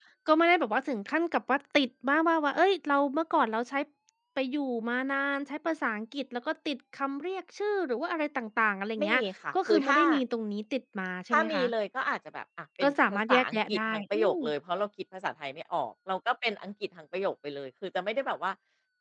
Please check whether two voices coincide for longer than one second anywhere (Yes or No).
Yes